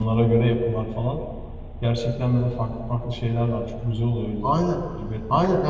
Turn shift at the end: Yes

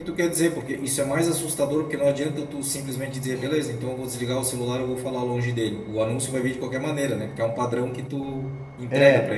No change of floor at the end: No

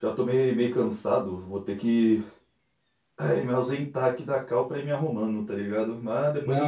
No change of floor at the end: No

